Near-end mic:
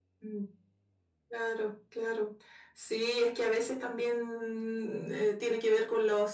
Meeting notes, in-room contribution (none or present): none